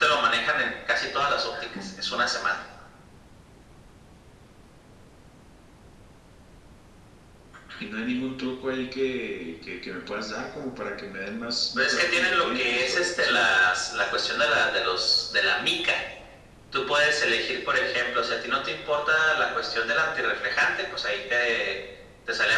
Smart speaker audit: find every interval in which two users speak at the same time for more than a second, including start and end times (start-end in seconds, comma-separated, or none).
11.8-13.5